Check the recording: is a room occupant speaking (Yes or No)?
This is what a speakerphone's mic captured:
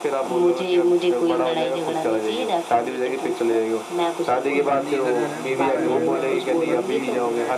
Yes